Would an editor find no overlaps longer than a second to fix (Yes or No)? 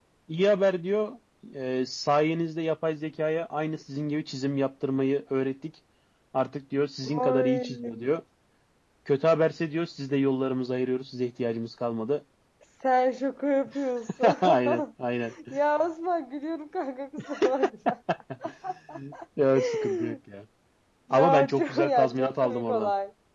No